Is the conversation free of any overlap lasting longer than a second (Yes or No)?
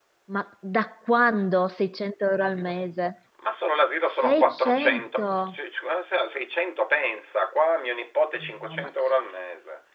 No